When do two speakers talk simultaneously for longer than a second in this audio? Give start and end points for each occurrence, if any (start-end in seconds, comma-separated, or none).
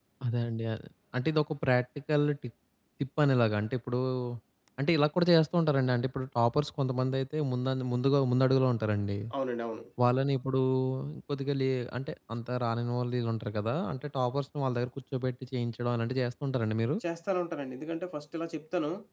none